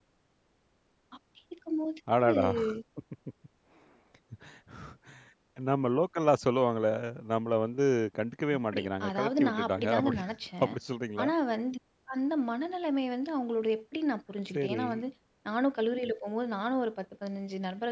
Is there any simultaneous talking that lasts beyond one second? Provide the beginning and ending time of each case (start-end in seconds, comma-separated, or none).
8.6-10.2